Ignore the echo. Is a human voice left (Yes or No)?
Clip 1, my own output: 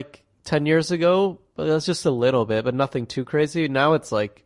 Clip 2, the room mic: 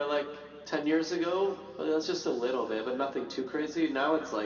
No